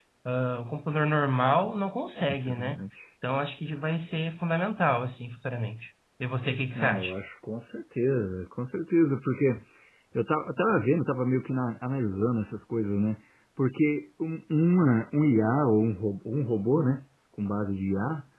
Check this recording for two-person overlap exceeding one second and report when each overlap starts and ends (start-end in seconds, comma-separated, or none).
none